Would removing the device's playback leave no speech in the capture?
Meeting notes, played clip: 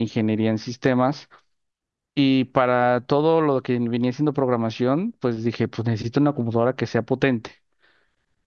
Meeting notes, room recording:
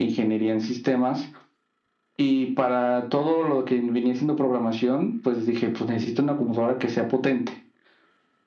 Yes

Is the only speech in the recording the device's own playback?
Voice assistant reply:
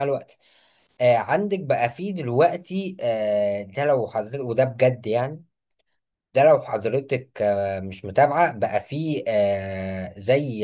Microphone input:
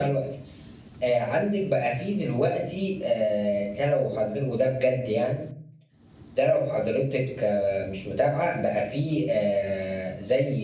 Yes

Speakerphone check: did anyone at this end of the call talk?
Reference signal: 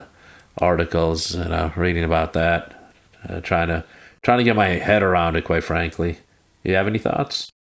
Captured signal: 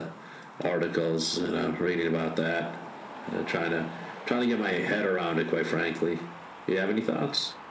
No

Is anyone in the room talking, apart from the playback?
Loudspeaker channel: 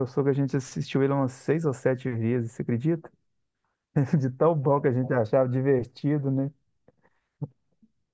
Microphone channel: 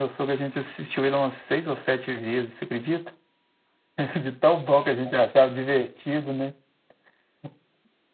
No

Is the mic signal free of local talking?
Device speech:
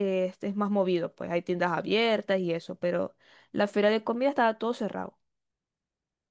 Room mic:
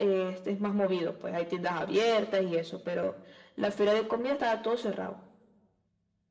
Yes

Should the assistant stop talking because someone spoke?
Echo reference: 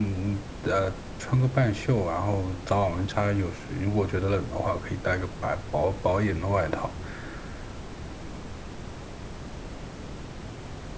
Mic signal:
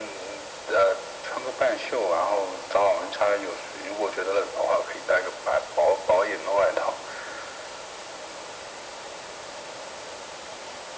No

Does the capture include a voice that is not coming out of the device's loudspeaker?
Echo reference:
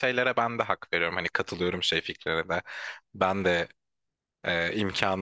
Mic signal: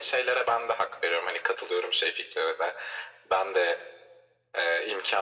No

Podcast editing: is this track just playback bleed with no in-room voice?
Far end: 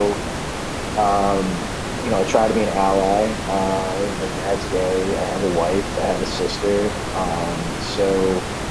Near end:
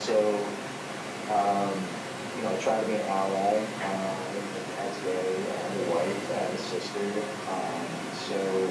Yes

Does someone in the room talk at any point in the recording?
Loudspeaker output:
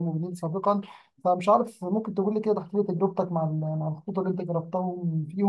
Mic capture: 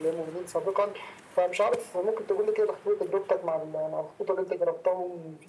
No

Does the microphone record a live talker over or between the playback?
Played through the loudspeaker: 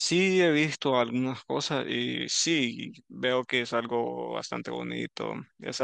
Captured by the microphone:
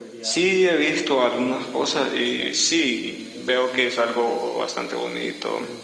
Yes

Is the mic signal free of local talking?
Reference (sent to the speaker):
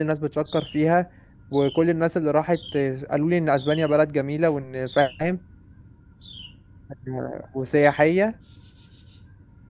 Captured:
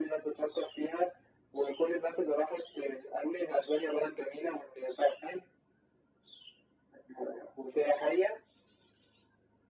Yes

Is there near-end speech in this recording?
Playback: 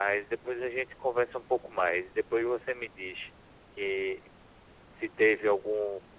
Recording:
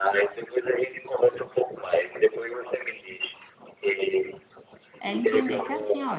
Yes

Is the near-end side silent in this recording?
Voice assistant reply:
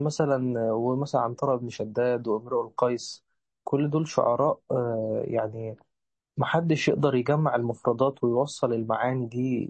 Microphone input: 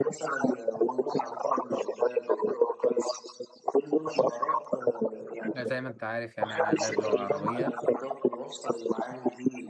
No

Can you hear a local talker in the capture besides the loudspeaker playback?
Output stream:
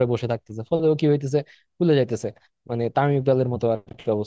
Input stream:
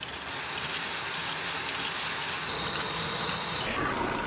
No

